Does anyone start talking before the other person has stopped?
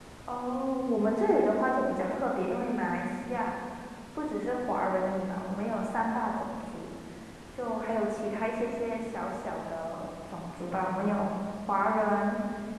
No

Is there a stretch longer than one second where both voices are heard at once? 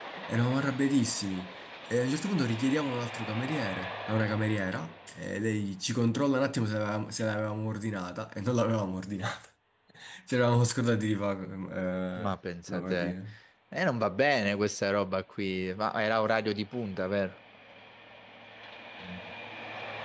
No

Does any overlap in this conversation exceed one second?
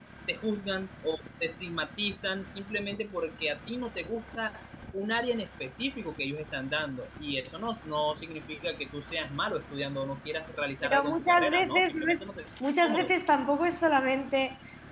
Yes, from 10.8 s

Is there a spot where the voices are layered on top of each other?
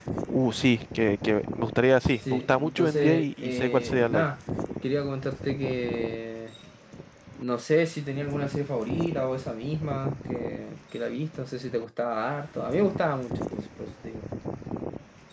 Yes, from 2.2 s

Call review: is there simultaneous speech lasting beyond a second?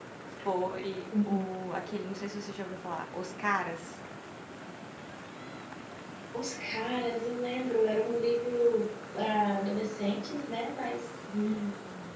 No

